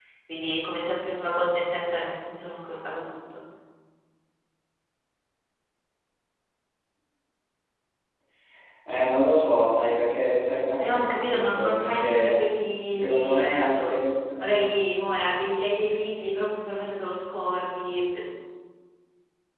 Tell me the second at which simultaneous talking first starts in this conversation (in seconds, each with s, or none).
10.8 s